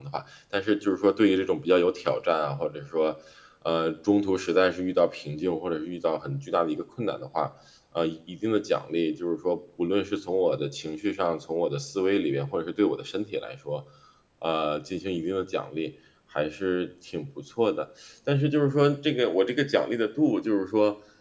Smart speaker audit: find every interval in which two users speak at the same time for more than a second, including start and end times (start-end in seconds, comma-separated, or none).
none